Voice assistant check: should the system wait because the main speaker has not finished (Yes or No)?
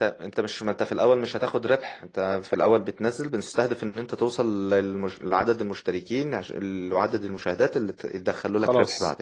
No